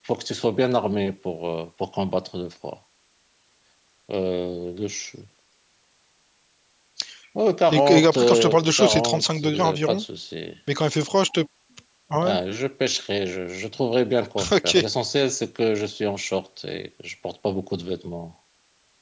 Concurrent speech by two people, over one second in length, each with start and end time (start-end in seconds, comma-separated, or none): 7.7-10.0